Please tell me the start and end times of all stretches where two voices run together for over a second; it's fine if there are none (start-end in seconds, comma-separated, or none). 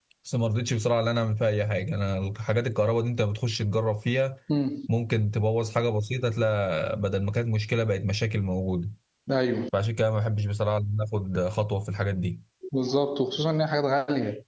none